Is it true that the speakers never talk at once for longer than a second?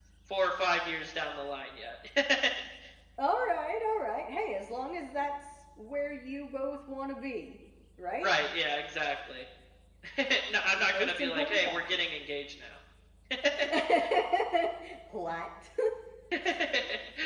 No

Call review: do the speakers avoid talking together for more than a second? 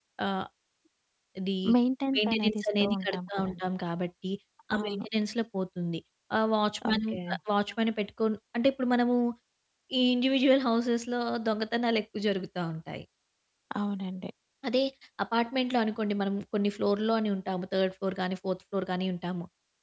No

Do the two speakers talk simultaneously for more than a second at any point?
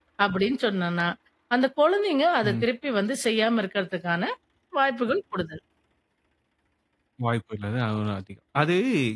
No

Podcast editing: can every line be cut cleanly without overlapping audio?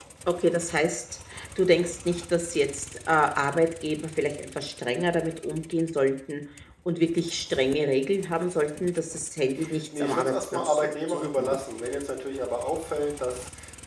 No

